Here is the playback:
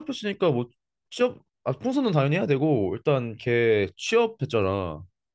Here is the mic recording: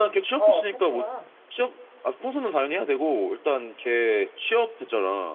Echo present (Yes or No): Yes